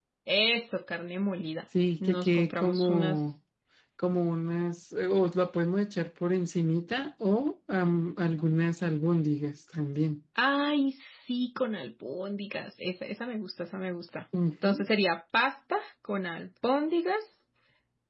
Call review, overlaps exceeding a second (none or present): present